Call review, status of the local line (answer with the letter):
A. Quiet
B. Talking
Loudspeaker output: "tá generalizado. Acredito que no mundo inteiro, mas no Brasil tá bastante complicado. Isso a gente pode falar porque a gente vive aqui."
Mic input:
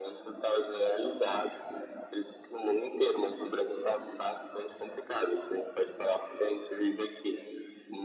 A